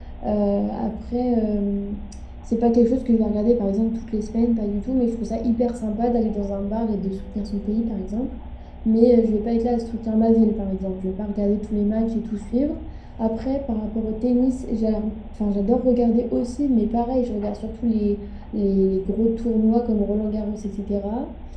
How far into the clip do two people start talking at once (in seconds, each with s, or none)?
none